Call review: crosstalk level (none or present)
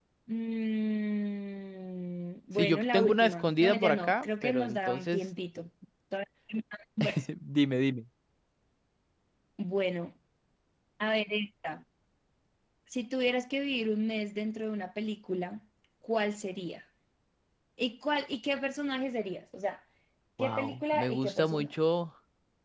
present